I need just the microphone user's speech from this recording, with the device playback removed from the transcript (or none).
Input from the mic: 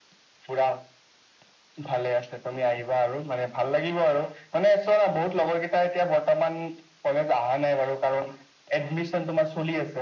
none